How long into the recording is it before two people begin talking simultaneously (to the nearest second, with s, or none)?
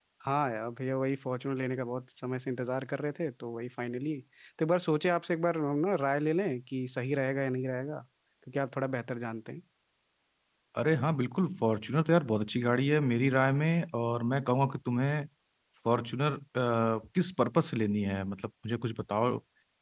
none